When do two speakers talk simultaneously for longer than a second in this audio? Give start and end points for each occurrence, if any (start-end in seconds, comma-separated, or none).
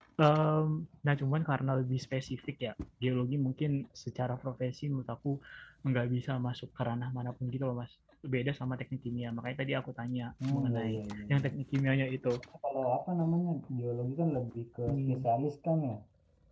none